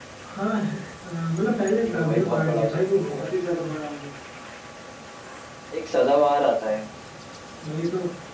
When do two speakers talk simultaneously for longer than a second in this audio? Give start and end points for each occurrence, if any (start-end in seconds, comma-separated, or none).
1.8-3.3